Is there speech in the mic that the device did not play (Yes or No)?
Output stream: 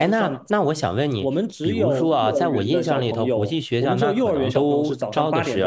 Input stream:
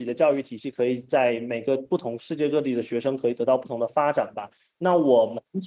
Yes